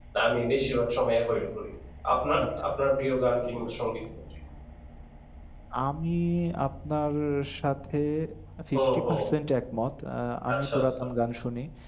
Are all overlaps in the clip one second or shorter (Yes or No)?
Yes